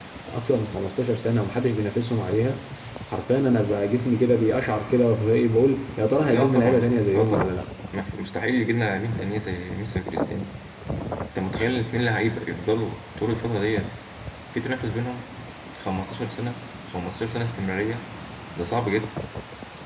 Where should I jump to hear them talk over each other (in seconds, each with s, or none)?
6.3 s